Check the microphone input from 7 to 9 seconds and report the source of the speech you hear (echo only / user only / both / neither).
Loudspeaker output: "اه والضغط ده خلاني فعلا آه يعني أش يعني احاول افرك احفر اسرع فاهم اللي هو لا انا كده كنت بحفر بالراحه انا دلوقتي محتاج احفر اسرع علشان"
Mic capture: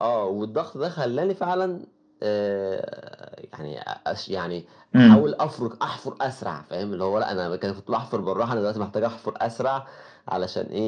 echo only